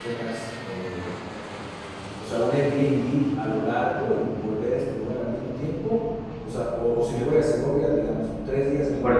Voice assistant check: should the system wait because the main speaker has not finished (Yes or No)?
No